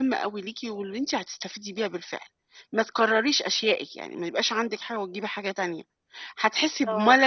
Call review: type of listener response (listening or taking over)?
listening